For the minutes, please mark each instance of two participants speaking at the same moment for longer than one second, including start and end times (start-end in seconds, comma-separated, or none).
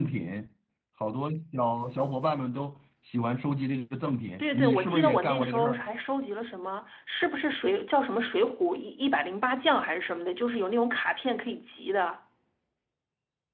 4.4-5.8